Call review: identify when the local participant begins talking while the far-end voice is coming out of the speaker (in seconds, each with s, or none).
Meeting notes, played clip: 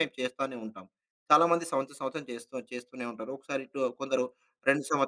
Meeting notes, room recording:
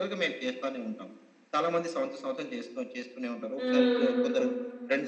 3.6 s